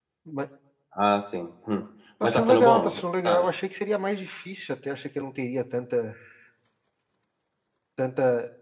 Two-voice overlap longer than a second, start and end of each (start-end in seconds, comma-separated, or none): 2.2-3.4